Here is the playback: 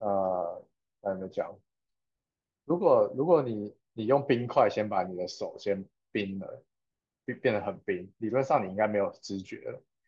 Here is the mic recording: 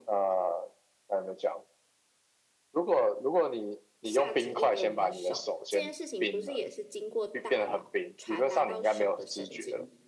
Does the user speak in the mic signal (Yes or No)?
Yes